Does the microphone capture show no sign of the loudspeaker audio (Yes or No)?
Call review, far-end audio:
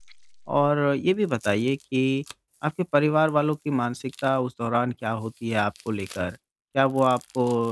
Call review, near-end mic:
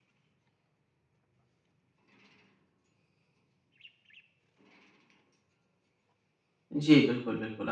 Yes